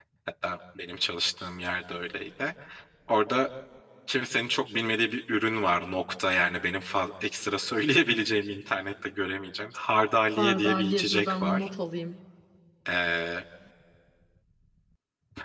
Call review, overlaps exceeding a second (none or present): present